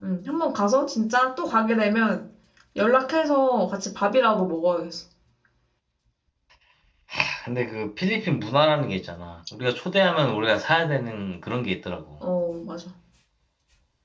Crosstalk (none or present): none